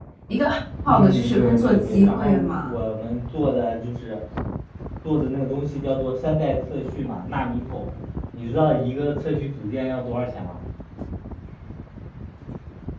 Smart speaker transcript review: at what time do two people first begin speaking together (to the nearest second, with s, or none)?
1 s